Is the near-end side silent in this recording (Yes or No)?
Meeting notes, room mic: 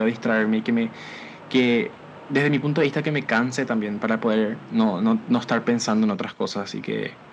Yes